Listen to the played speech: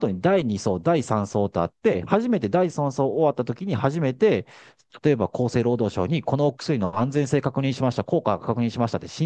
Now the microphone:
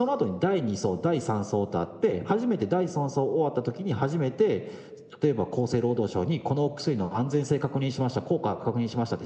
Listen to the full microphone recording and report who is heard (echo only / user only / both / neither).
echo only